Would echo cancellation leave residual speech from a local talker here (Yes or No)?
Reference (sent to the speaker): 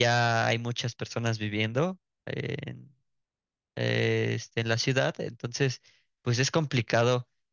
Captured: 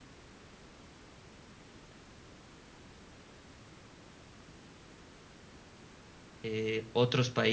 Yes